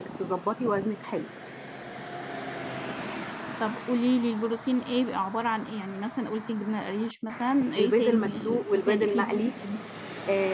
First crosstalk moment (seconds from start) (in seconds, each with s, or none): 7.8 s